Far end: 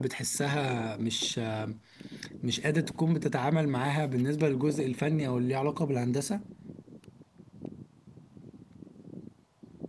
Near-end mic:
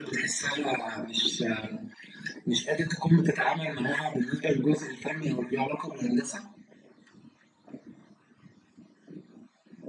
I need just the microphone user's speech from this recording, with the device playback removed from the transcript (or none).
none